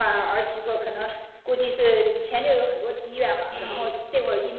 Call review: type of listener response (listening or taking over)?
listening